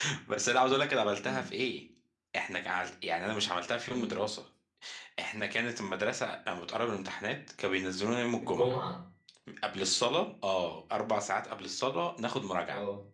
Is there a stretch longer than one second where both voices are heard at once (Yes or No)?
No